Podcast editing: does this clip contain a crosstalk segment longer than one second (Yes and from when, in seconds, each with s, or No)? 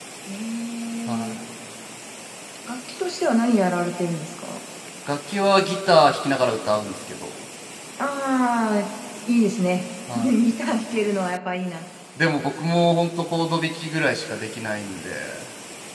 No